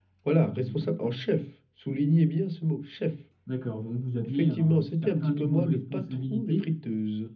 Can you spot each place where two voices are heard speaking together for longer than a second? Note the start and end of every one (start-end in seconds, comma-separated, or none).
4.3-6.7